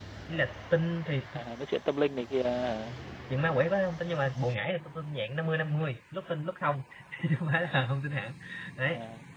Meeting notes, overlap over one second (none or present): none